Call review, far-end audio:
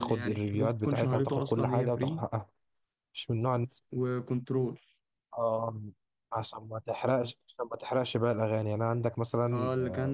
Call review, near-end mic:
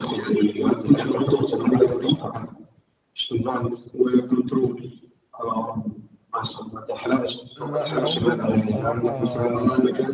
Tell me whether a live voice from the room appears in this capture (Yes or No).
Yes